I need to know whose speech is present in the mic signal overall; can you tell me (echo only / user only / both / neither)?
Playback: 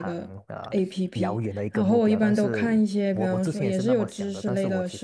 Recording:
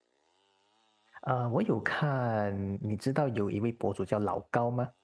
user only